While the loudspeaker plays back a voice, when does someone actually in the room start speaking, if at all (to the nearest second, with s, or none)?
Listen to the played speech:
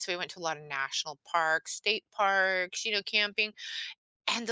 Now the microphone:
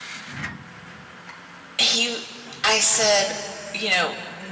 2 s